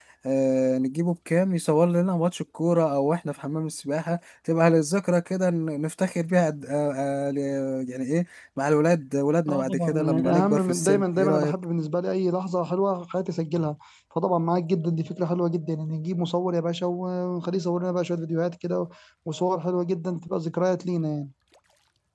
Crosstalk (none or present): present